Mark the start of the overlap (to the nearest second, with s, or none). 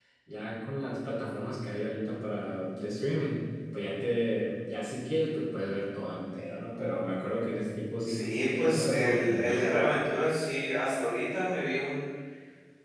8 s